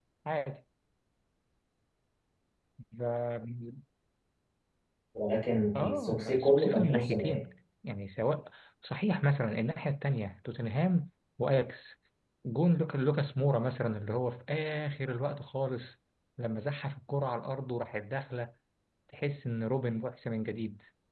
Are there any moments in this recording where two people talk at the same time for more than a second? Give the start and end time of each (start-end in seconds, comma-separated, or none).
5.8-7.4